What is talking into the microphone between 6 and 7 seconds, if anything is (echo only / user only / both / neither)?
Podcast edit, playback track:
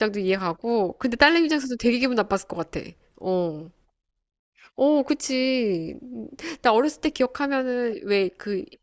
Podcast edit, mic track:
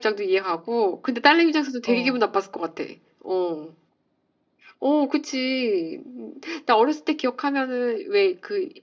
echo only